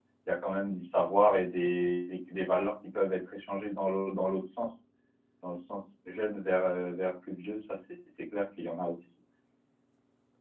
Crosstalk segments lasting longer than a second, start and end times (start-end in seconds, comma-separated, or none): none